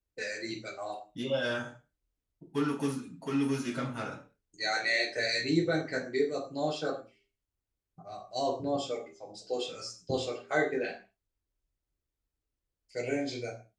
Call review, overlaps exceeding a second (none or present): none